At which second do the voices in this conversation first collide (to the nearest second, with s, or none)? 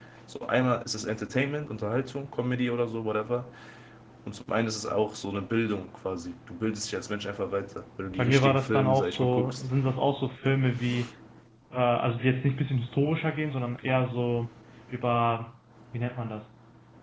8 s